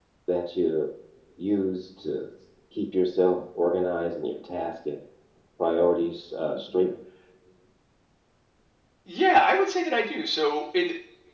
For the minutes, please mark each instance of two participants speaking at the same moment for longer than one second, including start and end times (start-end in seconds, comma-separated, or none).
none